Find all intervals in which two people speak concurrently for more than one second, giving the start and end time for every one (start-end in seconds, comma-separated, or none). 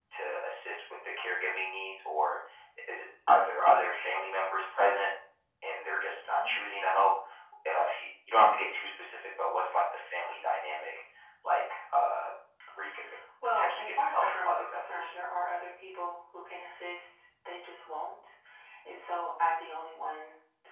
13.5-15.1